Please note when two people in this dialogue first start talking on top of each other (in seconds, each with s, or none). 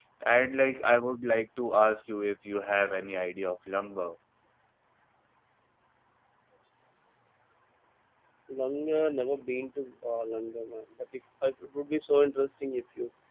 none